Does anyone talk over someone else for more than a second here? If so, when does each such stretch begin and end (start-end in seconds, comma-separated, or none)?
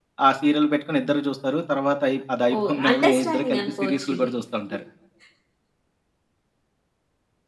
2.6-4.3